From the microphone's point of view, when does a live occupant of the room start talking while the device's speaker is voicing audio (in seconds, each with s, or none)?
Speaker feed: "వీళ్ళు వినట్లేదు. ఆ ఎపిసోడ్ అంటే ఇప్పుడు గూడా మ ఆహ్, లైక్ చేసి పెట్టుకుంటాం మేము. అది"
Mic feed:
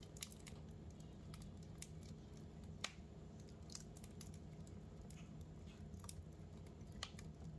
none